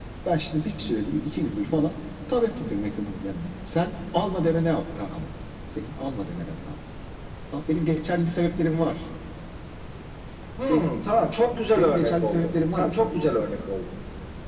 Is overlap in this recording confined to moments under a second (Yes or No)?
No